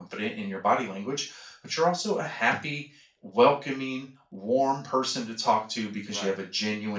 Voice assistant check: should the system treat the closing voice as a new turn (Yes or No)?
No